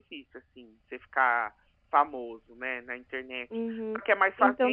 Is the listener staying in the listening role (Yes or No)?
No